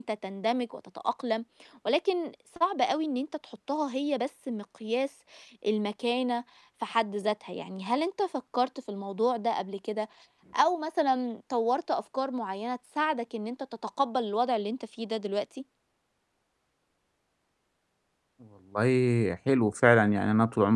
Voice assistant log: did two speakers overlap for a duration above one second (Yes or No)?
No